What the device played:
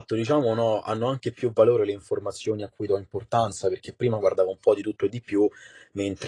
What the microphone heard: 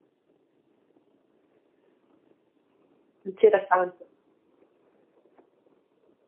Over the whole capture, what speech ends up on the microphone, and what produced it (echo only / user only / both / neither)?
user only